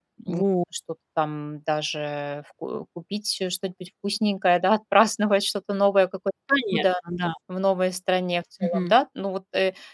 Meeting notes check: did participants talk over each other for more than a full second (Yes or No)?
No